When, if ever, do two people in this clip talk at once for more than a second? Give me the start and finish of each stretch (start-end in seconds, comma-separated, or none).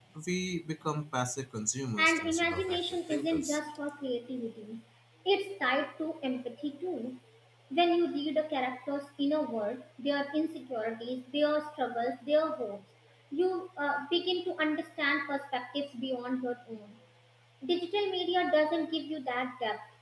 2.0-3.6